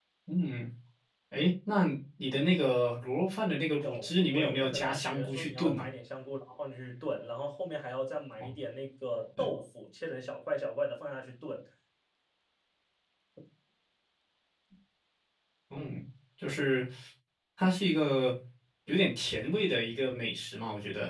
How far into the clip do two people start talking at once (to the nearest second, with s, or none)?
4 s